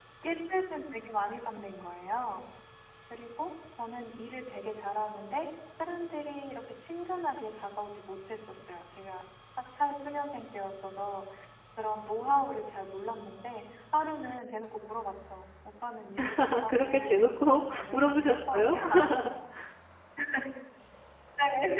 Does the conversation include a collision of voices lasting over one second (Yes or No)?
Yes